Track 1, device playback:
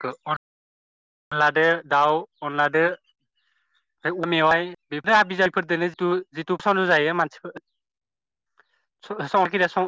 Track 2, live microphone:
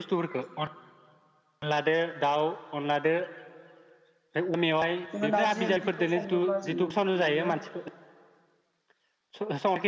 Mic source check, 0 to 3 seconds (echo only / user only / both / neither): echo only